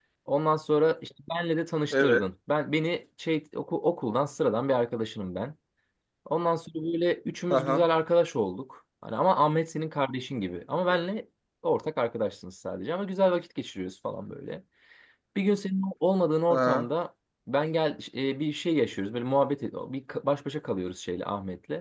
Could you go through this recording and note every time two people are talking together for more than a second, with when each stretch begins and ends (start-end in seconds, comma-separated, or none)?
none